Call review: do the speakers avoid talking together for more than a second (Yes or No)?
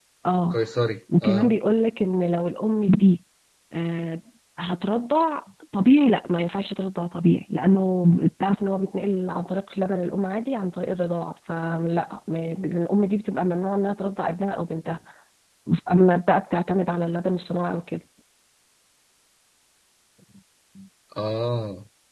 Yes